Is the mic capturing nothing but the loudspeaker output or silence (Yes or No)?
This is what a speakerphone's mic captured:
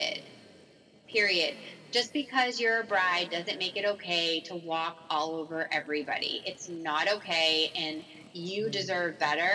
No